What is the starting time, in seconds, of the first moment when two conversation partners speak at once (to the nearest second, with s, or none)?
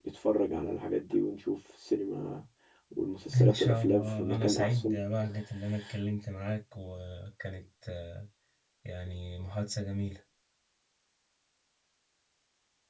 3 s